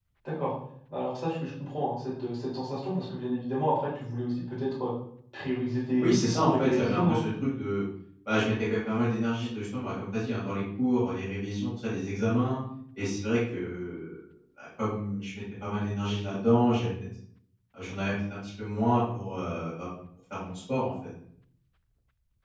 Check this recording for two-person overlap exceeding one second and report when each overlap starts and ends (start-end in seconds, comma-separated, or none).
6.0-7.2